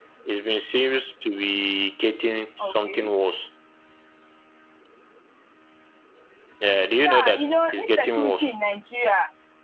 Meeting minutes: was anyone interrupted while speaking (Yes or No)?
Yes